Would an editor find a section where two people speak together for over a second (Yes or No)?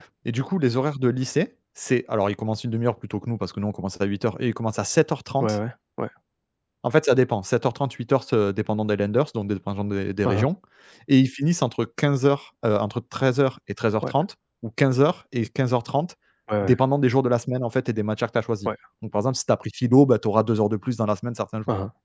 No